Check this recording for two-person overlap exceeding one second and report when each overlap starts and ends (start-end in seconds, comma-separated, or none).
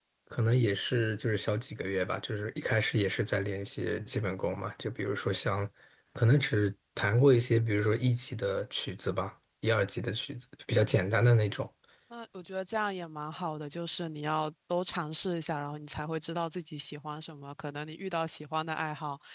none